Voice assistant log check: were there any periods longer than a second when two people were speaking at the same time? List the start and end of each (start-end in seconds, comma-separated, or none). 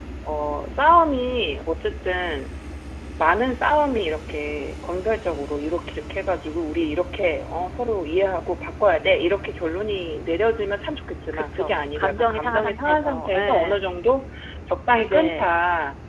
11.3-13.8